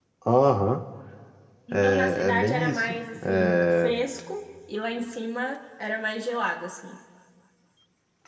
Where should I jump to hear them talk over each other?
1.9 s

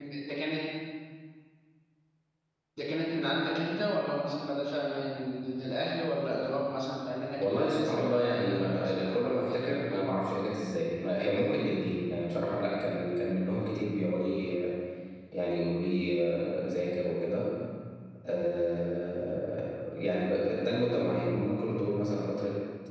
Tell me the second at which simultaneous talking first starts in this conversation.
7.4 s

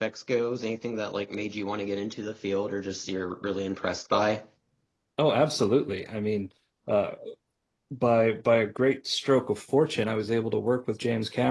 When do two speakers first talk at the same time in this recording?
none

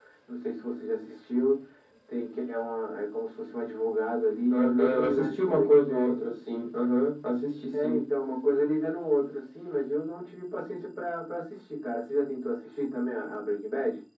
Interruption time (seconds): 4.5 s

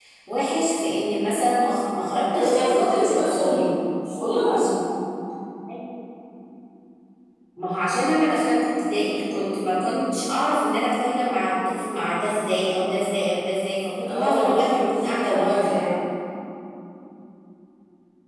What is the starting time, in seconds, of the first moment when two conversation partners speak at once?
2.3 s

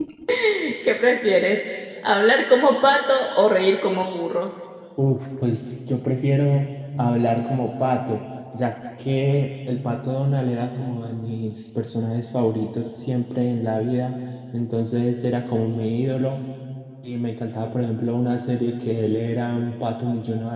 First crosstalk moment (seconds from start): none

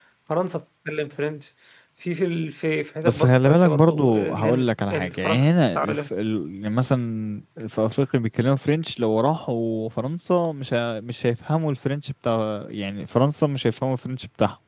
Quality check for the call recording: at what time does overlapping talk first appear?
3.0 s

